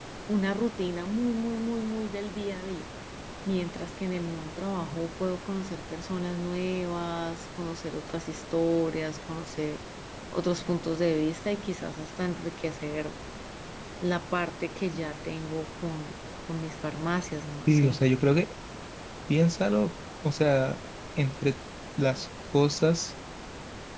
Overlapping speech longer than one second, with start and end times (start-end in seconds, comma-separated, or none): none